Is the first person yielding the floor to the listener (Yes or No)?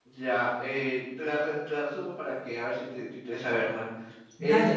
No